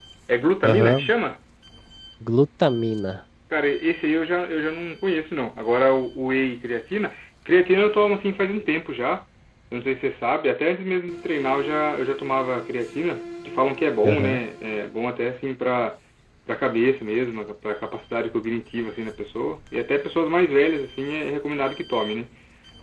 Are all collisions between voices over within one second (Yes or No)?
Yes